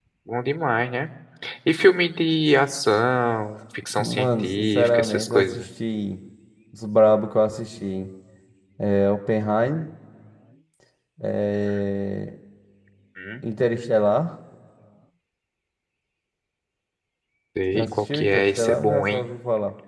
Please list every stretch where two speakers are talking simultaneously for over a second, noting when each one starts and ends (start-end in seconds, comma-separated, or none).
4.0-5.7, 17.7-19.3